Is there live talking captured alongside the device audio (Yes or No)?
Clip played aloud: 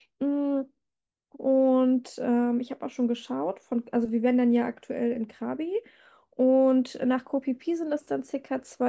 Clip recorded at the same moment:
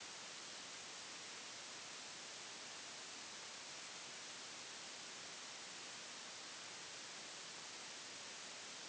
No